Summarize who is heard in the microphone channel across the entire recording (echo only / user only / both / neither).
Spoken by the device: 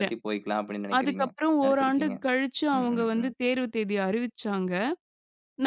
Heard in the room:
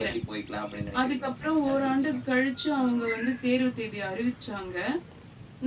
echo only